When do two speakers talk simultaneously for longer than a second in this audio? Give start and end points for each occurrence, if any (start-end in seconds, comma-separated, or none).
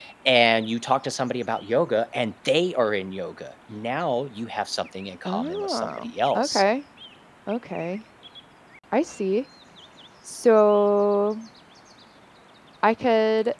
5.2-6.6